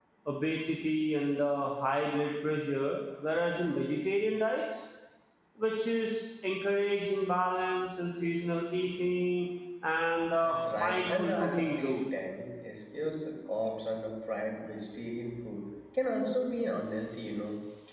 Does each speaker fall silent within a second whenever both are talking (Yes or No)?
No